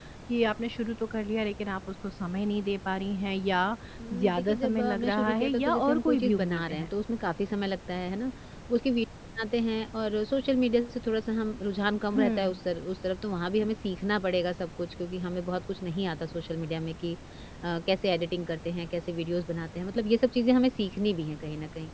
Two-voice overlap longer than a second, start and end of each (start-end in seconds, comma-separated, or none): 4.1-6.9